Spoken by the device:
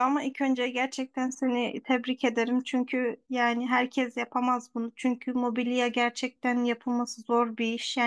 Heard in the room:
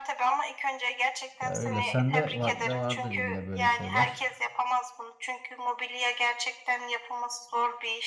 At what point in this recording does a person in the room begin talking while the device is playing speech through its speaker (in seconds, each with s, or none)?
1.4 s